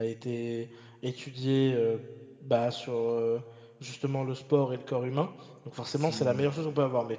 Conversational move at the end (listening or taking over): listening